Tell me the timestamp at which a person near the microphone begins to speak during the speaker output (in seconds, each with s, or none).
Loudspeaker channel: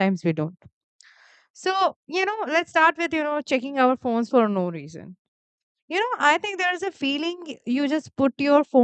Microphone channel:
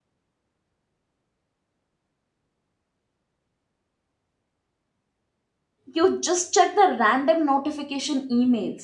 5.9 s